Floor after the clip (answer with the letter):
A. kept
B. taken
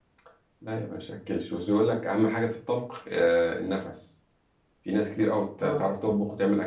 A